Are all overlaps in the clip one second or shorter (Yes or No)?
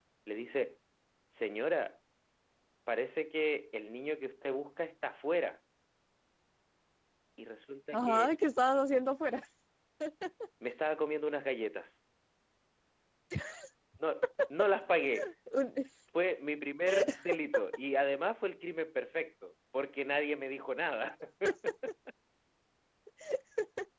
Yes